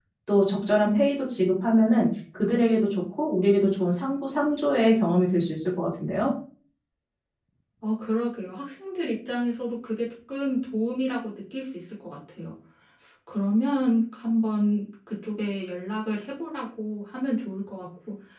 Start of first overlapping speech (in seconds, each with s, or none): none